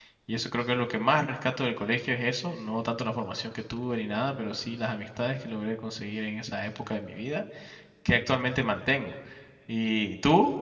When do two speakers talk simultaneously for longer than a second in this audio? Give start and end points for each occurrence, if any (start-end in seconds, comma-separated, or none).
none